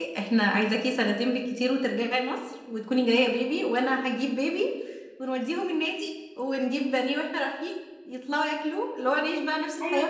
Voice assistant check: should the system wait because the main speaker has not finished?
No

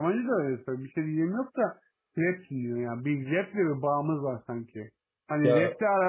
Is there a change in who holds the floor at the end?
No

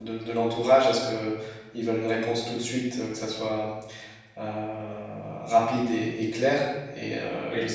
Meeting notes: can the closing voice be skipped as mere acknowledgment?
Yes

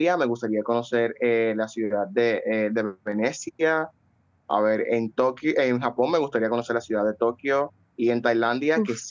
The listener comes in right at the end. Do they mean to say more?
No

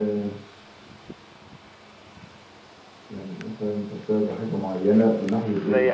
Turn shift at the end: Yes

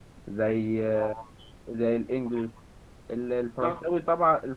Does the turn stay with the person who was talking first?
Yes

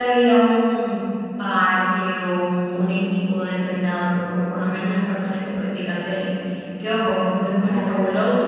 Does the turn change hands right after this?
No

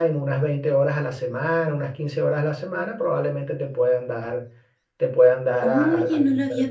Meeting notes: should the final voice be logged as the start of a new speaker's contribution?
Yes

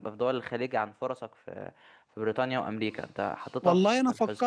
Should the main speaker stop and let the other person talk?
Yes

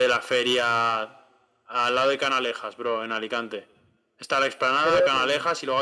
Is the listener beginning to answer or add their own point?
No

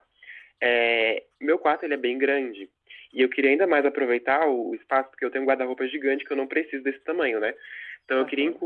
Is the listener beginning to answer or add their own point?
No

